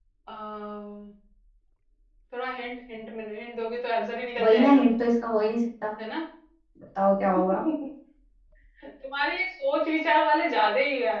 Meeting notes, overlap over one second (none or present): none